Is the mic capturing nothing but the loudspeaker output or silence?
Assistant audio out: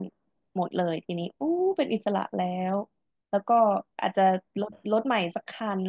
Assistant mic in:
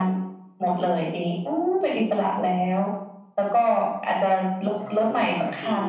No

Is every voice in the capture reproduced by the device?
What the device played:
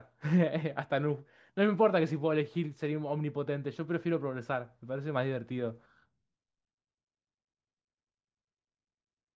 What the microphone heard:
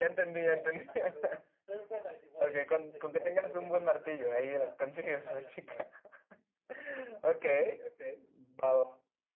No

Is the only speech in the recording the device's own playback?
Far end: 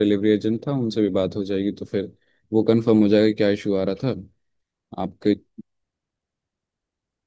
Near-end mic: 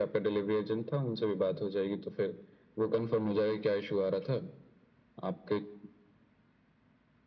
Yes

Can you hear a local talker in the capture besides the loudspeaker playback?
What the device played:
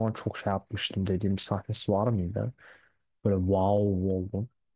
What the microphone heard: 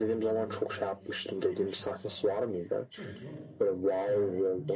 Yes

